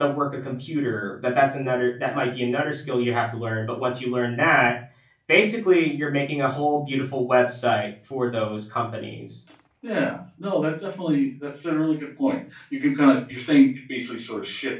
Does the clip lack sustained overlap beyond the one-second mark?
Yes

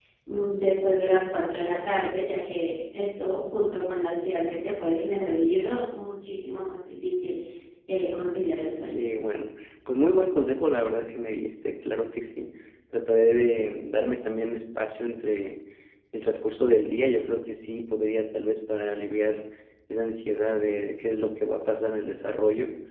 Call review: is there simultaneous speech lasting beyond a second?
No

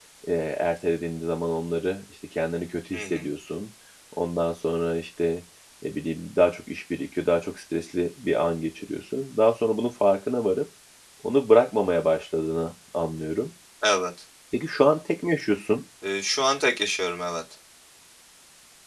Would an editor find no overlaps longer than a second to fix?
Yes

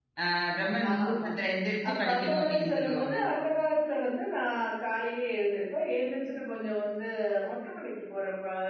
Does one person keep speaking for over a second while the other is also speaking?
Yes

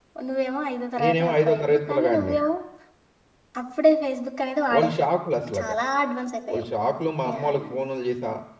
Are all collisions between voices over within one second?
No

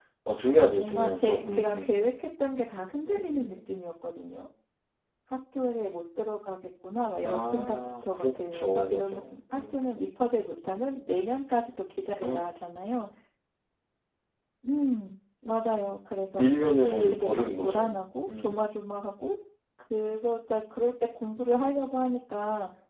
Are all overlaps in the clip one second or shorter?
No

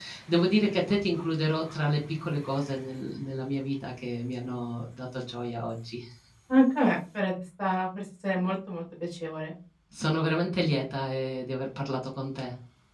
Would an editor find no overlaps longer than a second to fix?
Yes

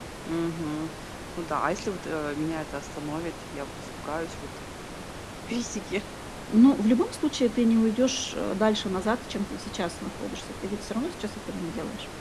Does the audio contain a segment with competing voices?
No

